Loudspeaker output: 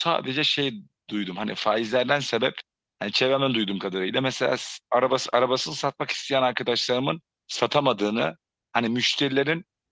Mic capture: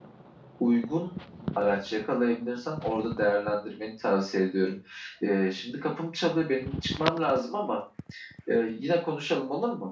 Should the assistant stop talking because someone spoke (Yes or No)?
Yes